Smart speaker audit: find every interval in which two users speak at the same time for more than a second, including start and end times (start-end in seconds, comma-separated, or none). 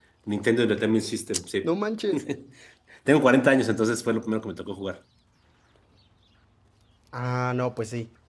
none